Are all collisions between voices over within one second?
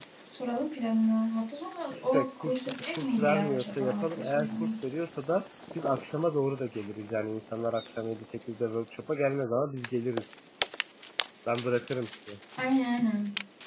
No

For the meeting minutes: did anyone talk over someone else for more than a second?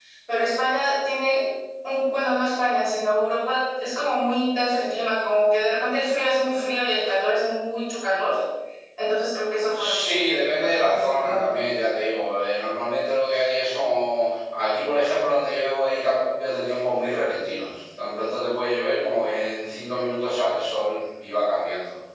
Yes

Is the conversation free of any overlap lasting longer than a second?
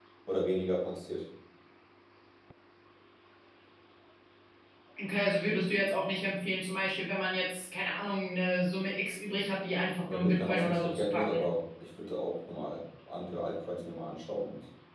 No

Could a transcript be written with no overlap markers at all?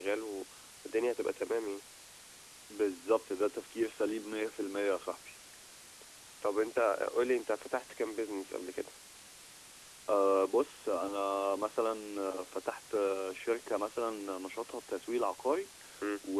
Yes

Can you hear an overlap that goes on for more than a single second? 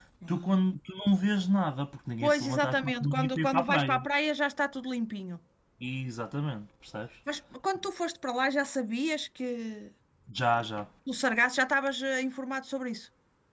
Yes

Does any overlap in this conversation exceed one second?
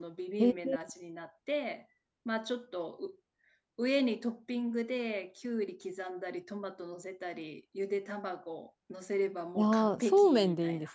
Yes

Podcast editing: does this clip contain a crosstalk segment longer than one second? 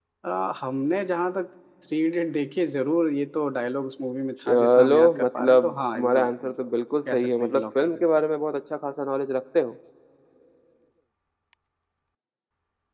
Yes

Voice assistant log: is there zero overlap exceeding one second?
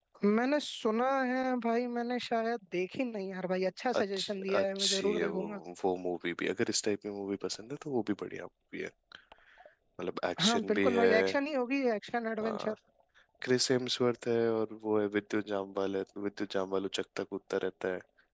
No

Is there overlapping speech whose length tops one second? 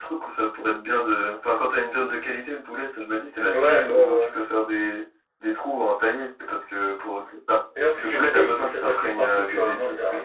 Yes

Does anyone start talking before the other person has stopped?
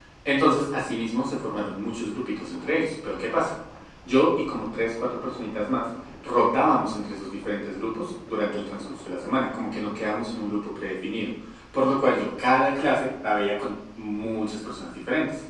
No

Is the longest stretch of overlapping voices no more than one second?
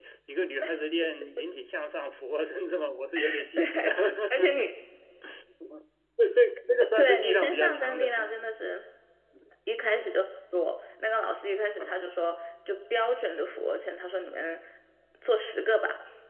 No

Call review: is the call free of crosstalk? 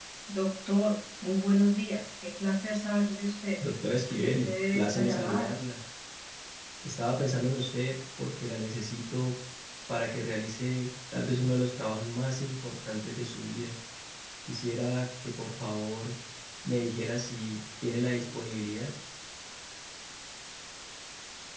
No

